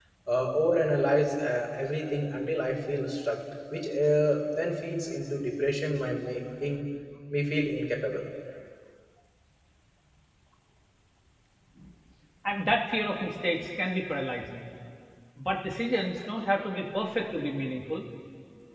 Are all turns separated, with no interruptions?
Yes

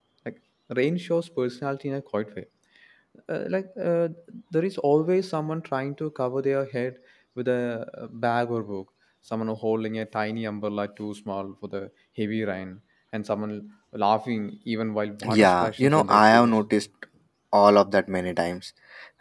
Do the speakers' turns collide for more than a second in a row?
Yes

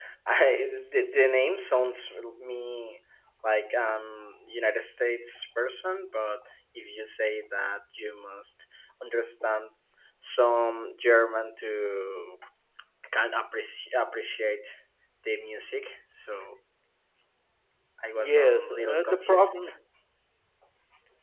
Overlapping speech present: Yes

